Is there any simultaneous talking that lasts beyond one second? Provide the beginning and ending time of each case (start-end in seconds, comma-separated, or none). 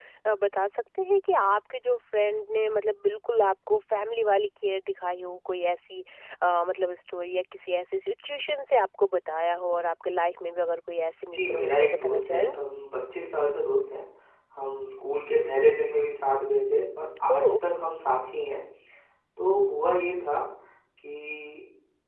11.3-12.6